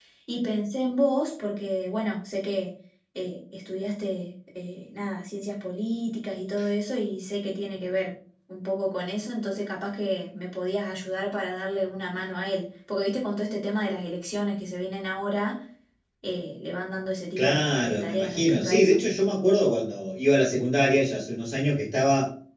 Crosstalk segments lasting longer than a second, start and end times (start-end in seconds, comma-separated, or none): 17.4-19.0